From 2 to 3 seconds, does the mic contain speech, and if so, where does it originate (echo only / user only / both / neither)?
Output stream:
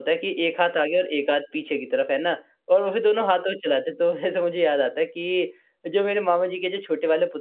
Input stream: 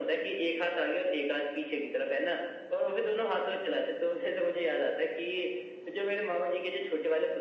echo only